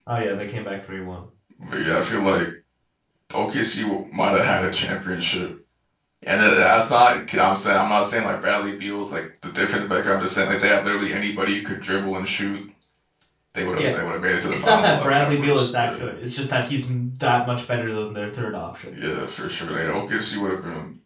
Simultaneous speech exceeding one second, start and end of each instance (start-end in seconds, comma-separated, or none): 14.5-15.9